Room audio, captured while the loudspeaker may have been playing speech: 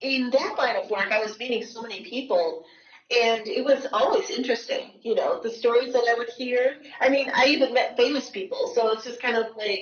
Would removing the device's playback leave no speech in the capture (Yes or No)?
Yes